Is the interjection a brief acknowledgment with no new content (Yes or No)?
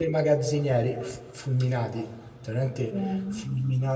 Yes